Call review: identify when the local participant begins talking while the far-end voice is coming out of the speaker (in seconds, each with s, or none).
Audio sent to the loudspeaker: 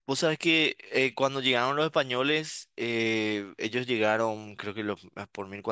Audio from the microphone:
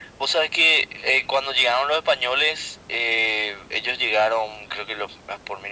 none